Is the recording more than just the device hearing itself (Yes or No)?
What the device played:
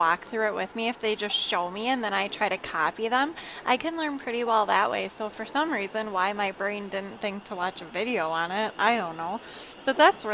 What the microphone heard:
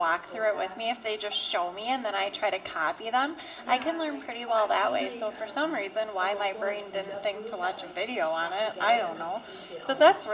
Yes